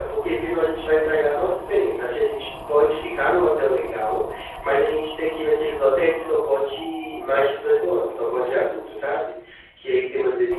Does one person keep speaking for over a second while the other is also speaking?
No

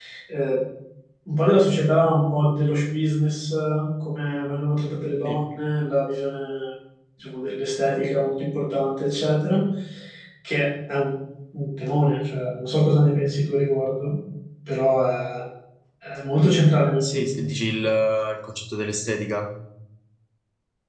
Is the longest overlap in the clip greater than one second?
No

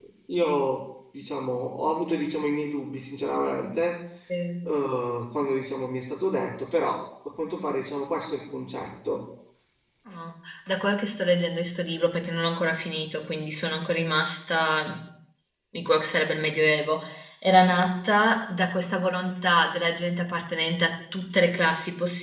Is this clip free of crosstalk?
Yes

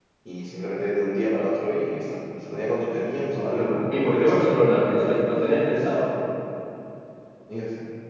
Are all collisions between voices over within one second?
No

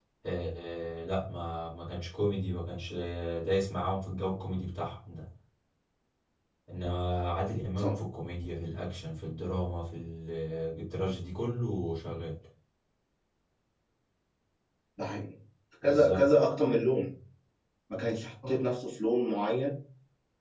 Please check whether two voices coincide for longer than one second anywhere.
No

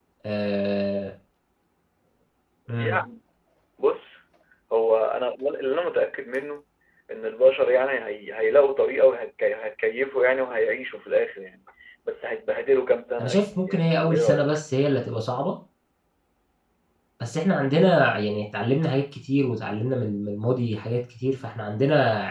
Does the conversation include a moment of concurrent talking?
Yes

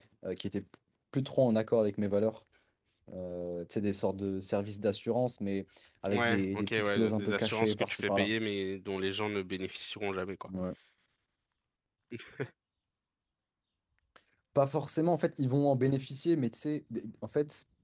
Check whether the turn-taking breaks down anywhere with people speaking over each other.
Yes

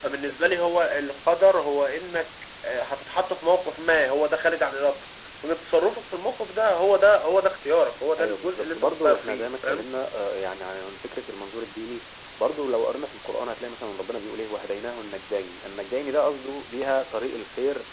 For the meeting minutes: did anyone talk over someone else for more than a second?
Yes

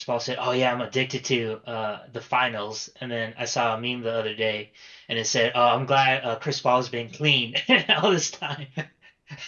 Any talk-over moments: No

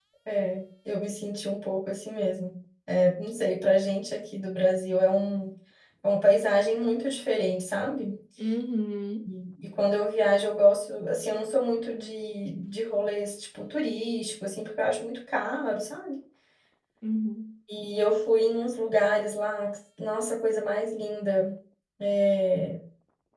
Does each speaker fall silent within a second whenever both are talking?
Yes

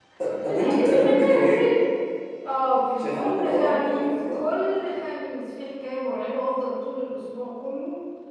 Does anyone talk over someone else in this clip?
Yes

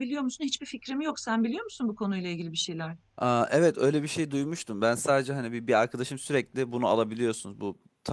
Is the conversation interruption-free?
Yes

